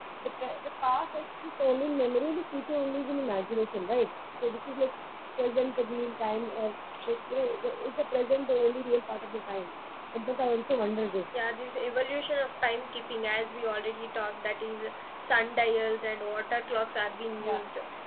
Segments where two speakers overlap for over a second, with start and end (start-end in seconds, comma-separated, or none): none